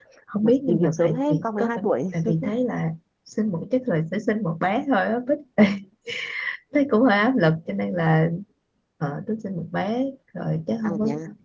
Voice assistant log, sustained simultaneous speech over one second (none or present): present